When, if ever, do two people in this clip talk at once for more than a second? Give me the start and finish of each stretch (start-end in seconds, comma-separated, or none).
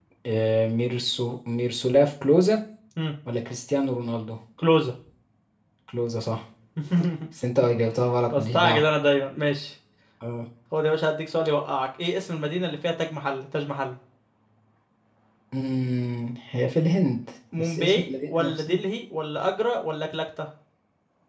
17.6-18.8